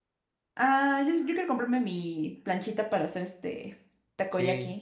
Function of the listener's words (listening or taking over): taking over